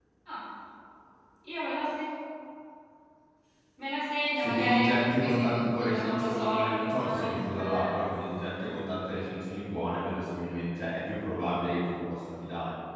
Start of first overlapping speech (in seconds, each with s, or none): 4.4 s